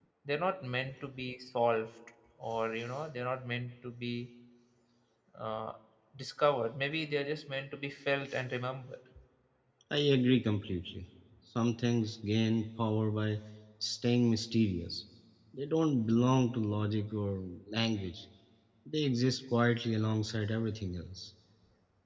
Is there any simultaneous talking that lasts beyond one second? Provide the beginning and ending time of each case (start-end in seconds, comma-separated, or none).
none